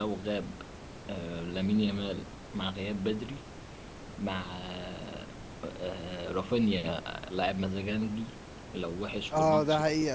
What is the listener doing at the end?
taking over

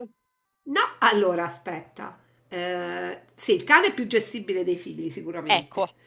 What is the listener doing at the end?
listening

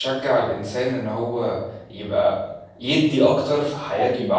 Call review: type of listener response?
listening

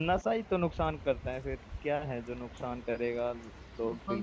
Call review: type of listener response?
taking over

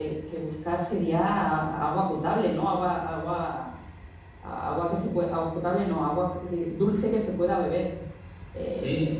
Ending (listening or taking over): taking over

